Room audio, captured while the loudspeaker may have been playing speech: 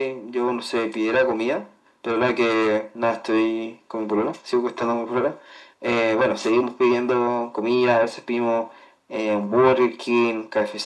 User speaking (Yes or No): No